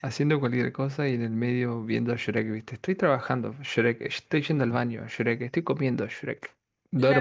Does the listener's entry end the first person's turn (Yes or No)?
Yes